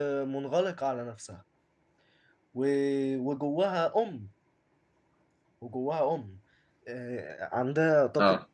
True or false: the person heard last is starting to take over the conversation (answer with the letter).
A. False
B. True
A